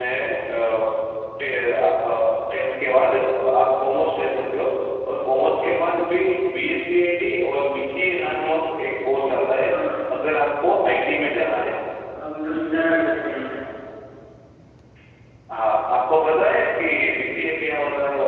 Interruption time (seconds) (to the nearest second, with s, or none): none